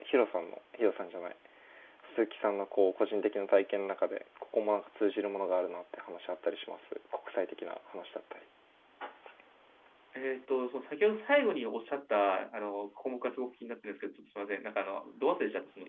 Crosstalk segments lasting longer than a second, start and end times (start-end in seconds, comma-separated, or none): none